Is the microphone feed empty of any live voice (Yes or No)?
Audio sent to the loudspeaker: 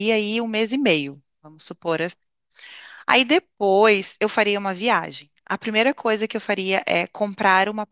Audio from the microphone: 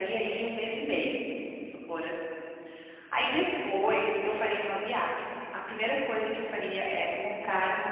Yes